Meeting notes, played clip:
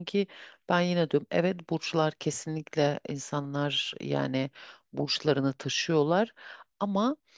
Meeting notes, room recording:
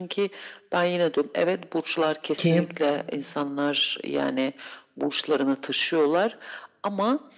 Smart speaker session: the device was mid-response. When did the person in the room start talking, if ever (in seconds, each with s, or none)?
2.4 s